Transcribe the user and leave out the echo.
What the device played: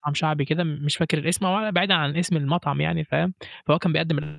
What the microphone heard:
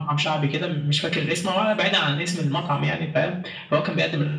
none

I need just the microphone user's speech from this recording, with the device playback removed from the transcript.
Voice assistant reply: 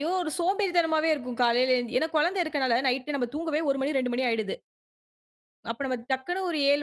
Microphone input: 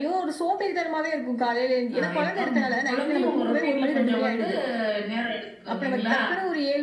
ஆ. இப்போ குழந்தையும் உங்க ரொடீன்ல கொஞ்சம் வந்து நேரம் எடுத்துக்கும் இல்லைங்களா?

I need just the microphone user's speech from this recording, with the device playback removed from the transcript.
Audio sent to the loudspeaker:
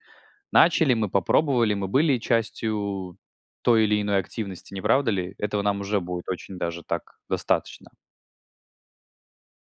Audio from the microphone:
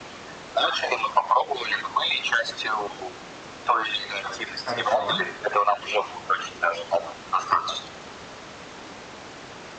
Хорошо.

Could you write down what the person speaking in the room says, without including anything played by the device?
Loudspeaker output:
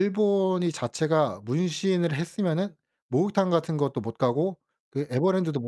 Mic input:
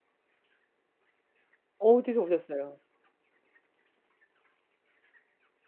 어디서 보셨어요?

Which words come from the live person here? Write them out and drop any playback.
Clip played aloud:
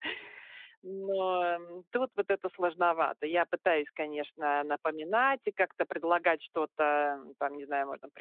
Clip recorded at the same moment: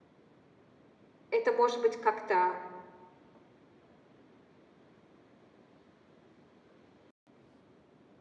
это, может быть, как-то

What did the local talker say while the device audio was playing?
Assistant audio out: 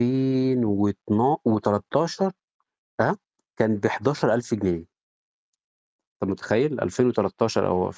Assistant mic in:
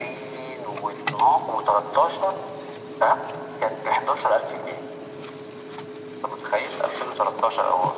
none

